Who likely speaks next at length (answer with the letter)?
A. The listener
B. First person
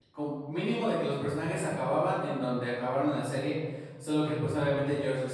B